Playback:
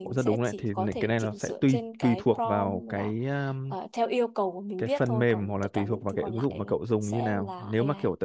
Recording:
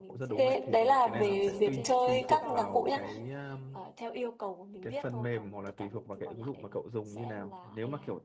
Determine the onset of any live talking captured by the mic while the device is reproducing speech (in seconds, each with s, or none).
0.3 s